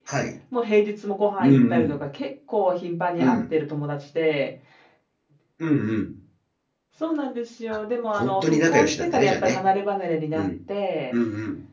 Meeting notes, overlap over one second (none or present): present